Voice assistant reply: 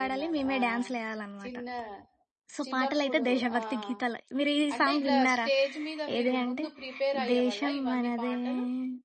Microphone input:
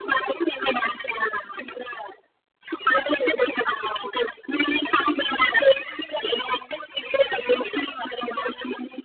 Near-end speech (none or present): none